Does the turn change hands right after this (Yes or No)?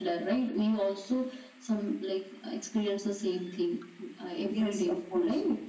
Yes